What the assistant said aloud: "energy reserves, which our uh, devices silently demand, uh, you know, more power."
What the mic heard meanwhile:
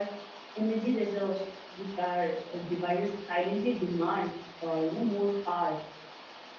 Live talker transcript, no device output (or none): none